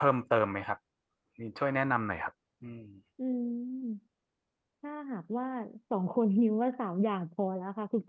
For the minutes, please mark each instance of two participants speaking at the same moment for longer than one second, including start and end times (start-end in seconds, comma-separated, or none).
none